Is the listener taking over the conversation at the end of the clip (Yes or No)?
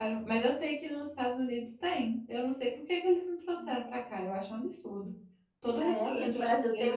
Yes